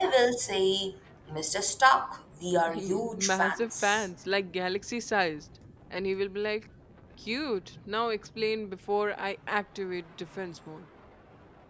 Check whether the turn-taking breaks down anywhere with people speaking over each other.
Yes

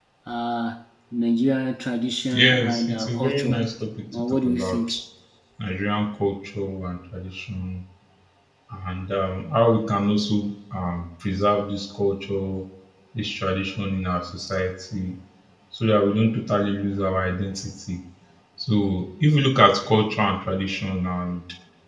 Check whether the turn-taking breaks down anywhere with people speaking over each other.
Yes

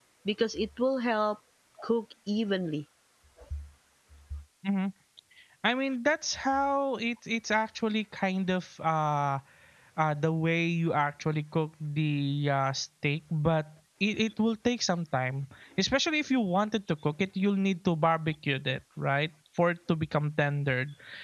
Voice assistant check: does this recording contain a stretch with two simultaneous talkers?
No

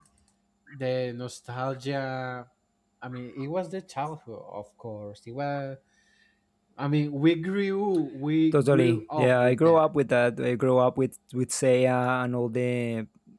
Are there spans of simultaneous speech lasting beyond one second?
Yes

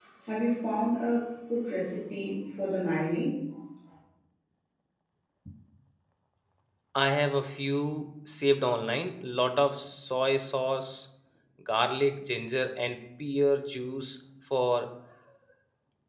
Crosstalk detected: No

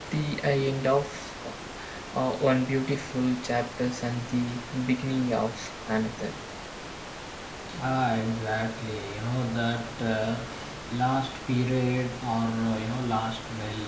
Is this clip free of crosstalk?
Yes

